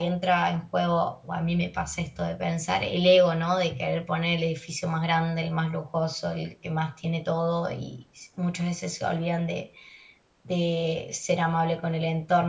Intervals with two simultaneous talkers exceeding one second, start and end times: none

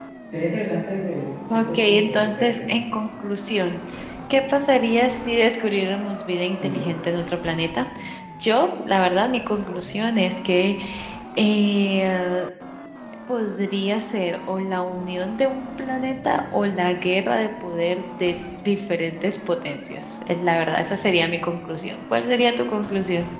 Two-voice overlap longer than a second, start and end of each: 1.5-2.7

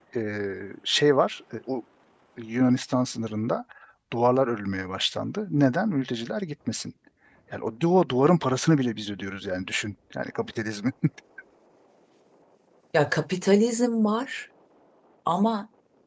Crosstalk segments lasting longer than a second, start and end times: none

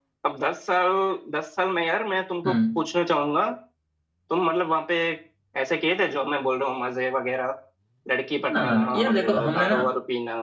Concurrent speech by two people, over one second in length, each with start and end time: 8.5-9.8

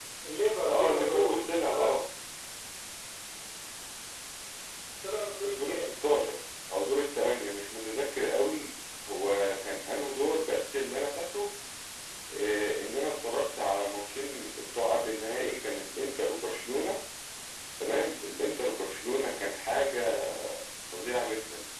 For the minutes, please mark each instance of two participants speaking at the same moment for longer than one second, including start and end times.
0.7-1.9

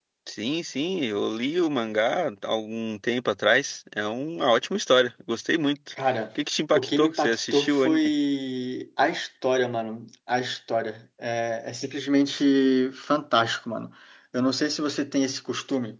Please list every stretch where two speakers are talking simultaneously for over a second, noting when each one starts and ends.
6.7-8.1

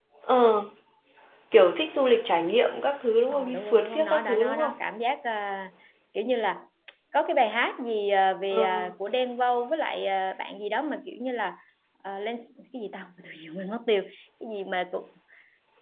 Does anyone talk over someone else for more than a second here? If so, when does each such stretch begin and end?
3.3-4.8

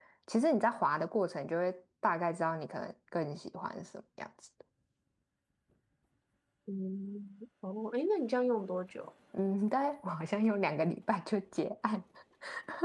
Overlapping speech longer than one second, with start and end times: none

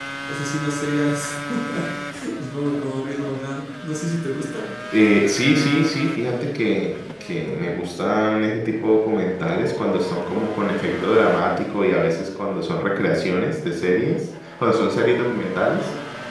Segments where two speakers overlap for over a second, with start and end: none

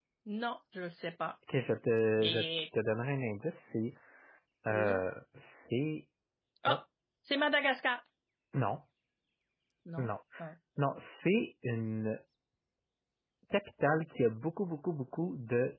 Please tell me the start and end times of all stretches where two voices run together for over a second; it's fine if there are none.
none

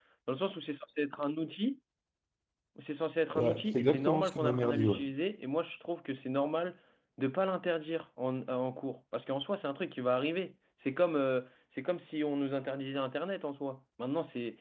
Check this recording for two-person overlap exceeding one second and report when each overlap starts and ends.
3.4-5.0

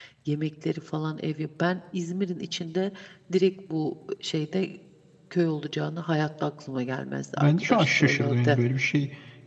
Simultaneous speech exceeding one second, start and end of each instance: 7.4-8.6

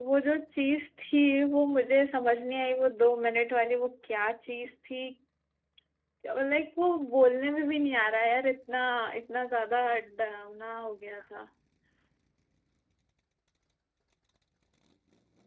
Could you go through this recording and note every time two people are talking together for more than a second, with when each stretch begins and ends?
none

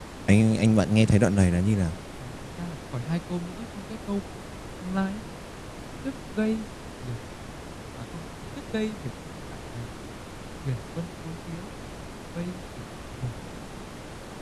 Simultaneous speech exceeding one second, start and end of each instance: none

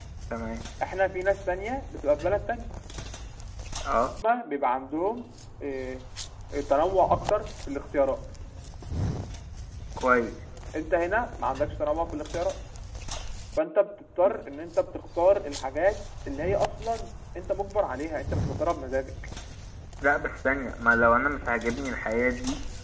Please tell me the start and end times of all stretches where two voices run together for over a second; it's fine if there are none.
none

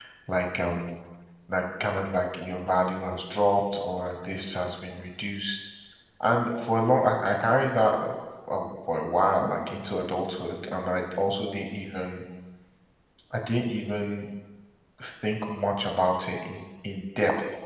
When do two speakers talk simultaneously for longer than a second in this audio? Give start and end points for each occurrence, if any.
none

